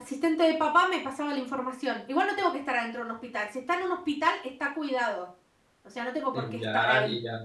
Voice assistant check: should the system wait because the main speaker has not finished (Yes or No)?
No